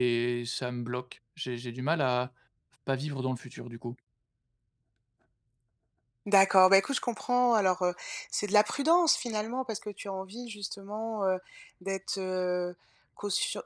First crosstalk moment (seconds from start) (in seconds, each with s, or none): none